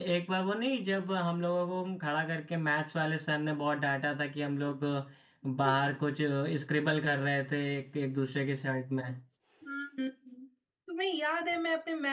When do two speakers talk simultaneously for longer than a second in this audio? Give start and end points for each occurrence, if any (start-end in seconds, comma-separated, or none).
none